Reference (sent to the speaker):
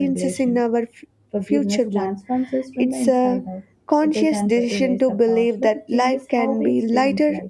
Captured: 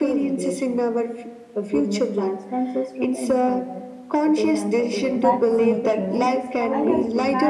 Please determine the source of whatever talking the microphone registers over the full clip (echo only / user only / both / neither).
both